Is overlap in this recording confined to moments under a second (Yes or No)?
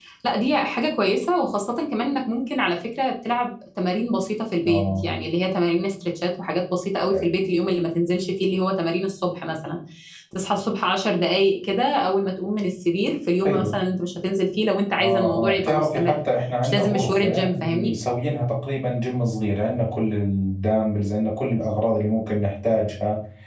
No